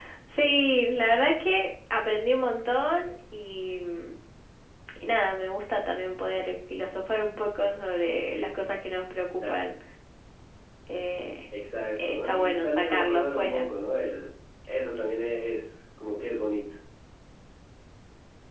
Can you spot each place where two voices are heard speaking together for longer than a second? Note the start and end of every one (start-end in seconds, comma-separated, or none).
12.0-13.6